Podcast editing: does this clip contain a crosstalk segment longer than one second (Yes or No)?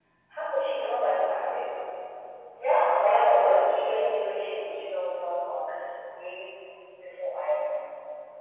Yes